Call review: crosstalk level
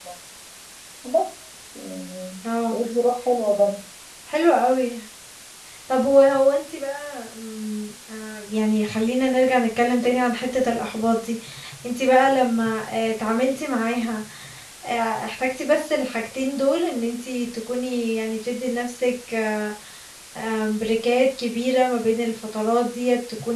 none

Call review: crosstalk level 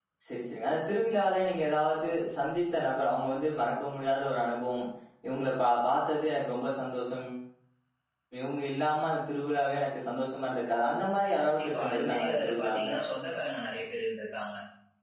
present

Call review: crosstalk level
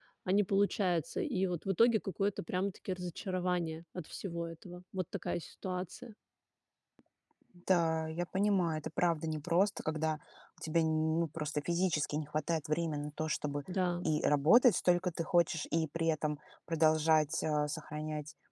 none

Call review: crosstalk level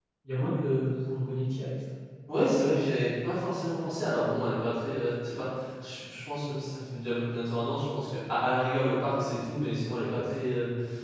none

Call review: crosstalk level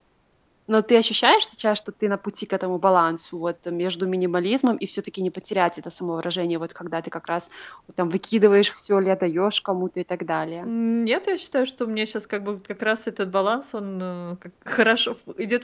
none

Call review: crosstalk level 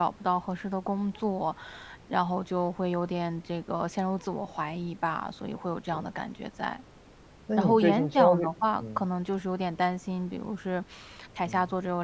present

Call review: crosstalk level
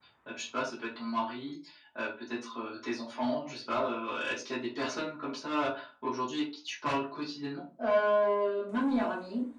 none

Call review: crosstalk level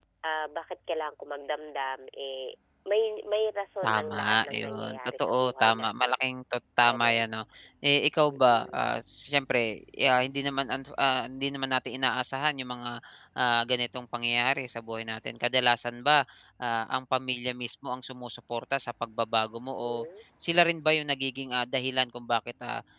present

